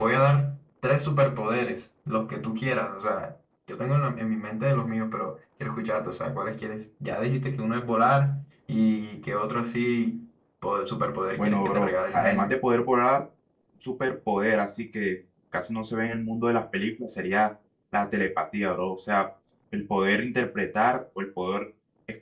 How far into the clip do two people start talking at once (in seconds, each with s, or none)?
11.4 s